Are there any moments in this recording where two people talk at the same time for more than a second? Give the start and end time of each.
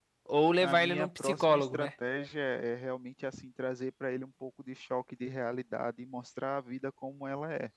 0.6-1.9

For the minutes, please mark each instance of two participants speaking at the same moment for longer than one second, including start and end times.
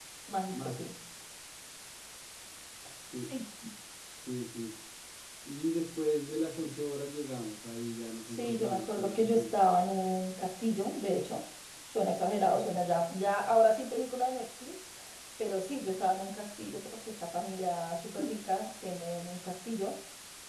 8.2-9.5

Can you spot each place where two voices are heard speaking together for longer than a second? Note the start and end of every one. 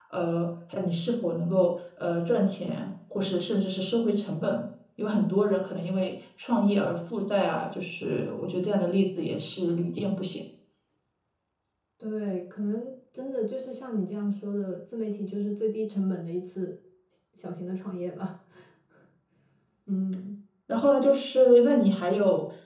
none

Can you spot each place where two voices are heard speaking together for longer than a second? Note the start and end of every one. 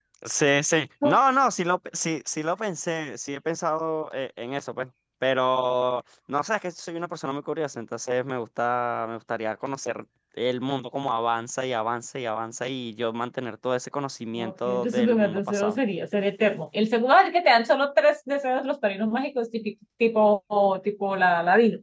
14.4-15.8

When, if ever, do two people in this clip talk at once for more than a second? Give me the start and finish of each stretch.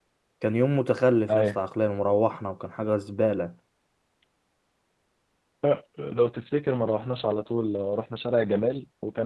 none

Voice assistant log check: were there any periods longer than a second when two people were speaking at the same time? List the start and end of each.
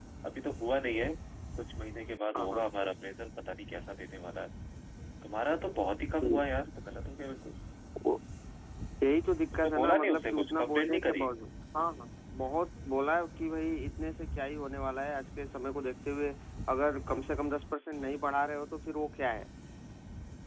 9.5-11.3

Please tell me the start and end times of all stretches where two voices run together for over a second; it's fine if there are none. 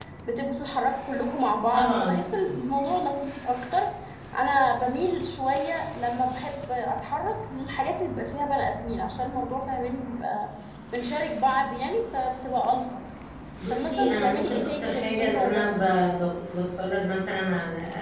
13.7-15.7

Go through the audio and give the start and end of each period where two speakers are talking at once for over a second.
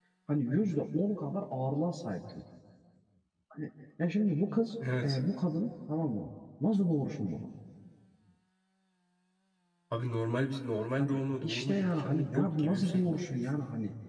10.9-13.4

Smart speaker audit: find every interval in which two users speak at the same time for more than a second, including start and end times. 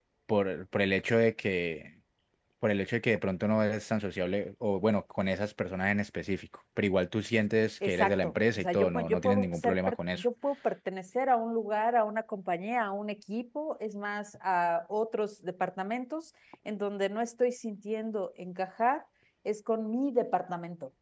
7.8-10.2

